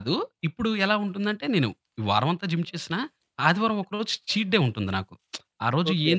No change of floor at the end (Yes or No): Yes